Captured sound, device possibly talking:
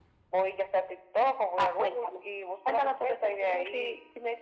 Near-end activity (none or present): none